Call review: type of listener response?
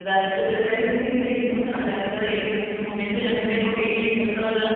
taking over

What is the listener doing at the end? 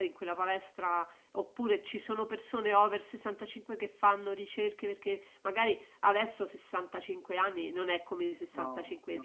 listening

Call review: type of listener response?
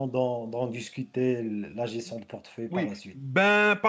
taking over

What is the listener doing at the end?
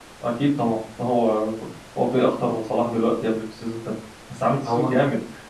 listening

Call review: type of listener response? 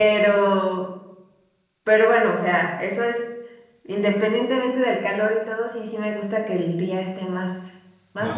taking over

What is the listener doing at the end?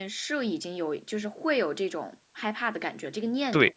taking over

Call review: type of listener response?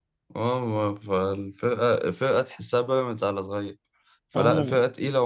listening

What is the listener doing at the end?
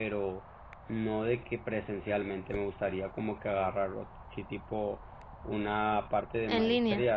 listening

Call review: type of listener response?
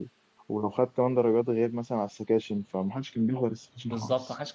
taking over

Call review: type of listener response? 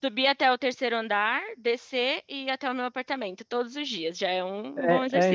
taking over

